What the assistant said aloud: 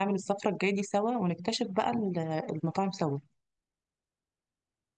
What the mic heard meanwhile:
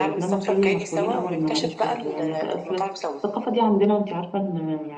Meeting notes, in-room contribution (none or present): present